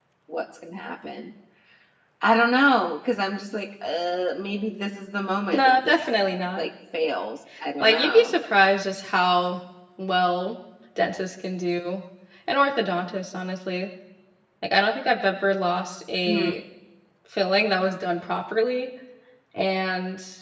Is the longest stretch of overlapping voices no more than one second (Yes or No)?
Yes